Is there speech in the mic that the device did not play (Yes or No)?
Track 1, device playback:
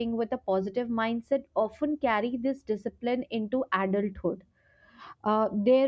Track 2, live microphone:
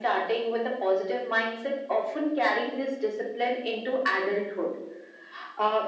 No